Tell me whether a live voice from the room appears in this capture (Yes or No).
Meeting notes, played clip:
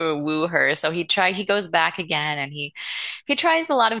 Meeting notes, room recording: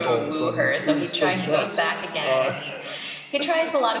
Yes